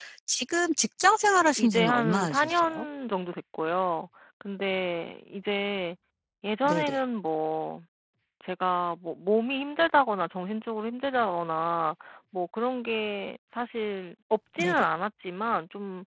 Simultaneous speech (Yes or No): Yes